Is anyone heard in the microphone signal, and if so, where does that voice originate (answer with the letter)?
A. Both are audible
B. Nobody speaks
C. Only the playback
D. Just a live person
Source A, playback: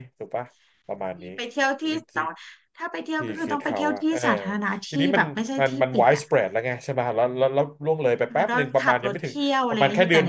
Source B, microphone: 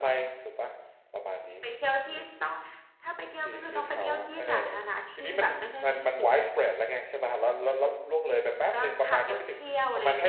C